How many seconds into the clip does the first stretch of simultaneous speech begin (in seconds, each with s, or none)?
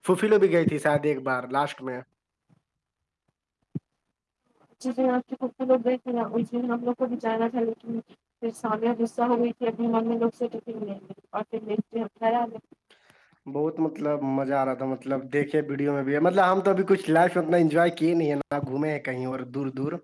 none